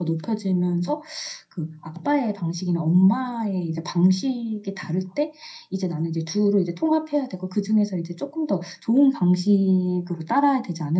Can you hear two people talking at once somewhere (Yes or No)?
No